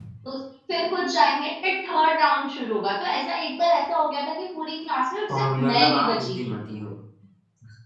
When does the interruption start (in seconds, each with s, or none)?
5.3 s